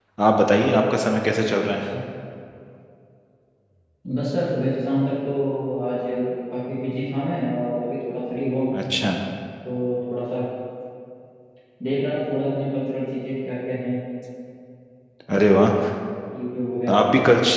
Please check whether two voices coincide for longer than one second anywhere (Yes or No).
No